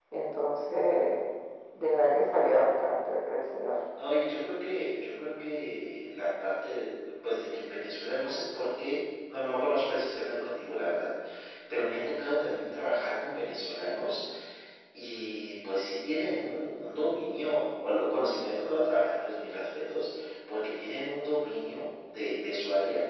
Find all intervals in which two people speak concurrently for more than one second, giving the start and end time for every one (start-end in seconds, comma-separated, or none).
none